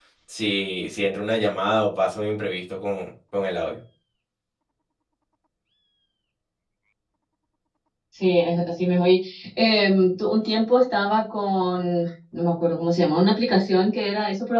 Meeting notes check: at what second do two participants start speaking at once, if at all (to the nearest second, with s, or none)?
none